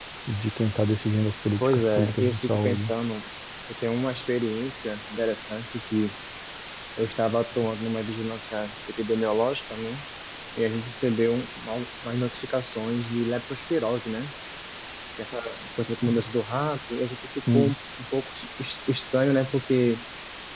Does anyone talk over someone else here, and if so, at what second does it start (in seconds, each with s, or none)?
1.6 s